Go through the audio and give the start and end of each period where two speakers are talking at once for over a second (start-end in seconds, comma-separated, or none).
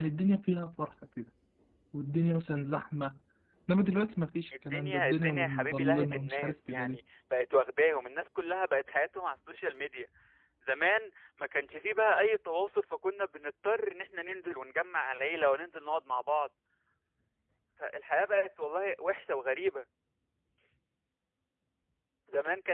4.6-7.0